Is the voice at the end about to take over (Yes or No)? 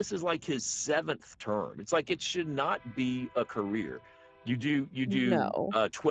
No